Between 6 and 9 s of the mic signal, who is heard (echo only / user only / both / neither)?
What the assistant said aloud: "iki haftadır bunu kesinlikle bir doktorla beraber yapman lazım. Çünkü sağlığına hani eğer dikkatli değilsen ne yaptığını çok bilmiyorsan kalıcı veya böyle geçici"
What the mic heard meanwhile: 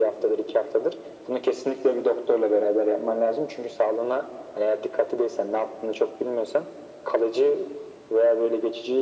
echo only